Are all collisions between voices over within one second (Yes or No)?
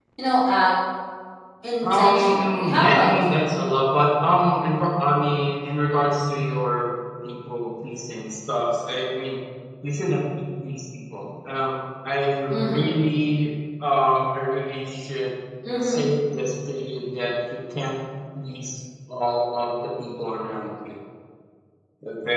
No